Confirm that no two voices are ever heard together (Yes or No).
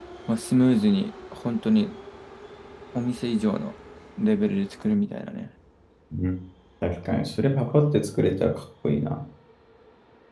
Yes